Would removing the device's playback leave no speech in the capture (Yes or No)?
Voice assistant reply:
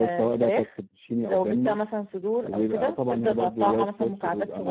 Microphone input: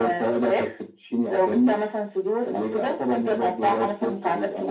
Yes